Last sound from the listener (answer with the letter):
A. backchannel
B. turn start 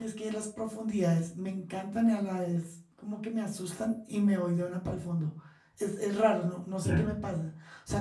A